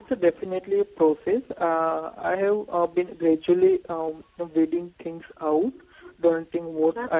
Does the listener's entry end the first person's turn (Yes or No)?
Yes